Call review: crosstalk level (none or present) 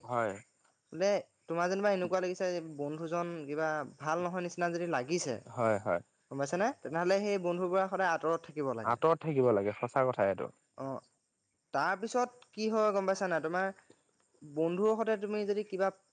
none